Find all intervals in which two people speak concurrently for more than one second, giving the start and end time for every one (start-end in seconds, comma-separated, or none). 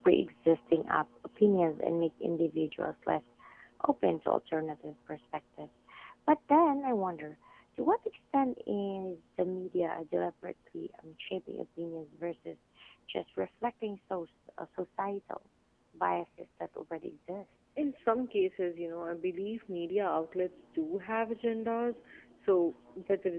none